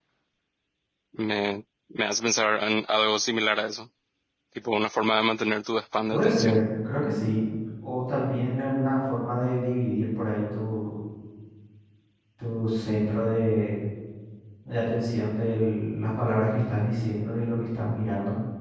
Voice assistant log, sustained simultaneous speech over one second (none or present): none